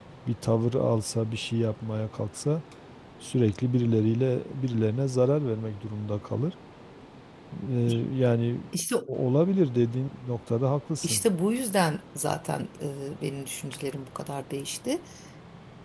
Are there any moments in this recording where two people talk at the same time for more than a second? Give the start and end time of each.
none

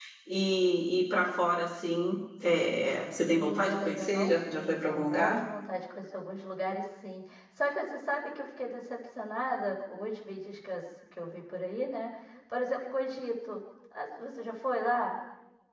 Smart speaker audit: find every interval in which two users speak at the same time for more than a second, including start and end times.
3.3-5.4

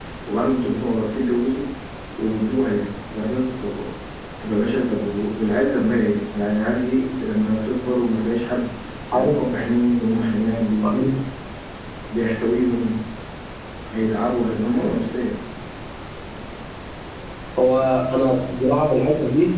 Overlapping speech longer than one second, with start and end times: none

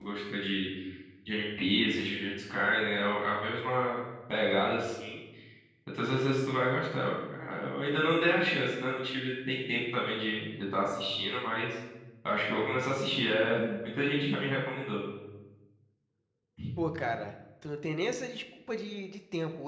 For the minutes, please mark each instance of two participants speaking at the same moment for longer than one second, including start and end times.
none

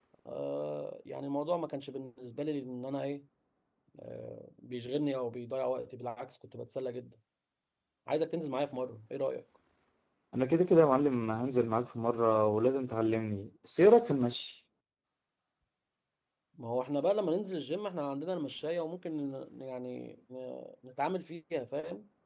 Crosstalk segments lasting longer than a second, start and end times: none

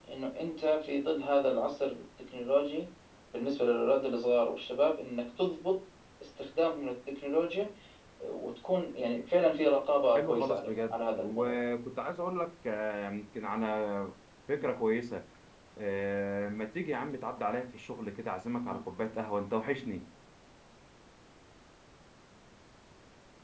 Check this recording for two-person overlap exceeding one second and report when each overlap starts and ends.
10.2-11.5

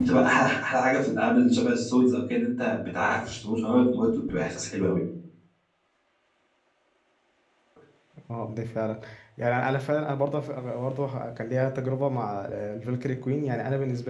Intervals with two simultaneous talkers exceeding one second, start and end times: none

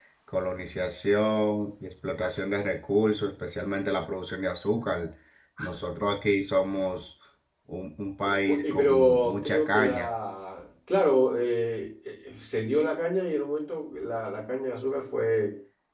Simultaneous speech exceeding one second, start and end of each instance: 8.2-10.1

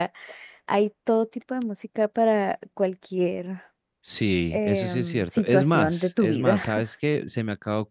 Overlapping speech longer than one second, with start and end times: 4.5-6.6

